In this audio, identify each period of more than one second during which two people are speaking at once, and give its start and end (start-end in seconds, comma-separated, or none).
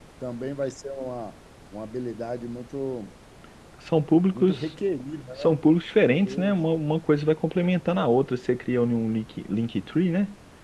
none